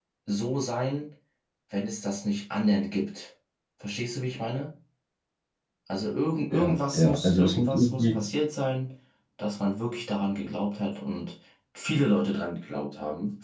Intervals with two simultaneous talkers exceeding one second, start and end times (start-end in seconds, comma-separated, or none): 6.5-8.2